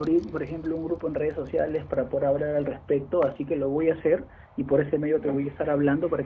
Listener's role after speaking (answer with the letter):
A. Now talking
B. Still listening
B